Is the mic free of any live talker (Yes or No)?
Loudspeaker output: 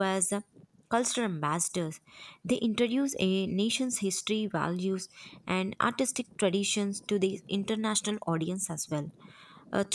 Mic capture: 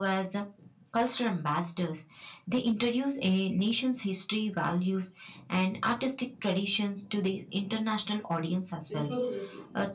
No